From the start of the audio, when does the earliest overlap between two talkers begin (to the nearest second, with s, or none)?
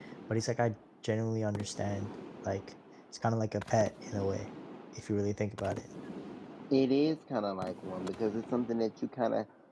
none